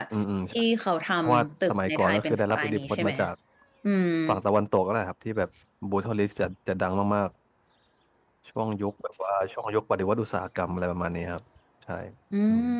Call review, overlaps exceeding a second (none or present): present